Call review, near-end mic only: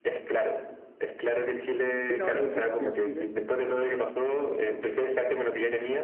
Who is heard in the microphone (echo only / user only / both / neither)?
both